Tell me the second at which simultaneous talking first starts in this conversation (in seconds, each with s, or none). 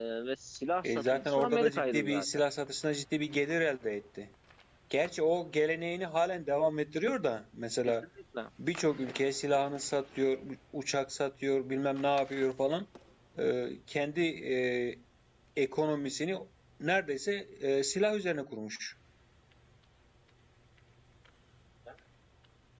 0.8 s